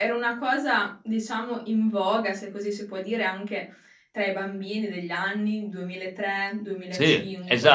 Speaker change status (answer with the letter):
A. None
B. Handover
B